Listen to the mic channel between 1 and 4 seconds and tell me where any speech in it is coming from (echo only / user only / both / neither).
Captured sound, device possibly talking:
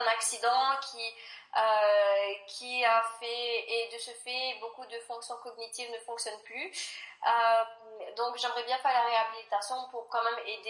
echo only